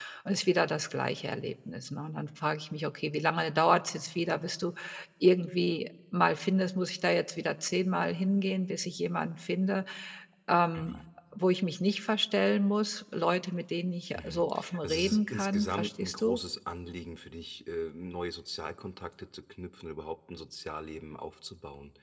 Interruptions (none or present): present